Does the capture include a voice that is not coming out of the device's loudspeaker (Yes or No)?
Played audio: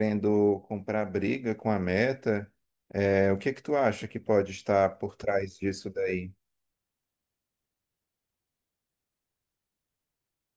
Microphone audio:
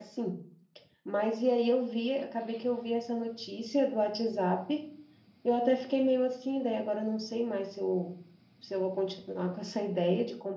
Yes